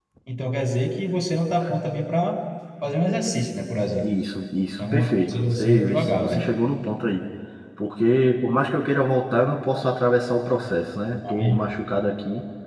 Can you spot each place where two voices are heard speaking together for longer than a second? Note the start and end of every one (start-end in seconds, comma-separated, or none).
4.9-6.5